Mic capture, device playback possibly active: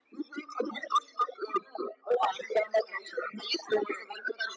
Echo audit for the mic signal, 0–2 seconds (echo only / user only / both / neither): echo only